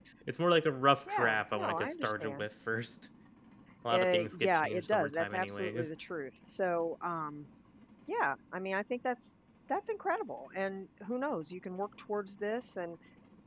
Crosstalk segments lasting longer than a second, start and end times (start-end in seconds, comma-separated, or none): 1.1-2.5, 3.9-5.9